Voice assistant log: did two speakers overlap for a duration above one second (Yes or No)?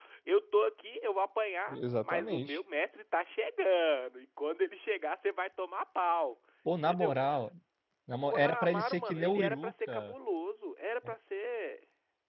Yes